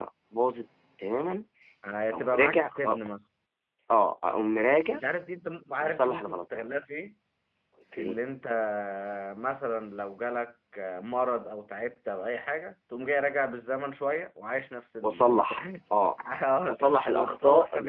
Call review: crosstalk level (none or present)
present